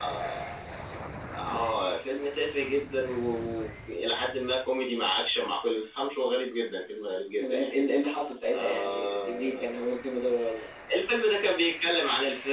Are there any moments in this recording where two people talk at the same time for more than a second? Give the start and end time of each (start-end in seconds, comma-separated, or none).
8.5-9.8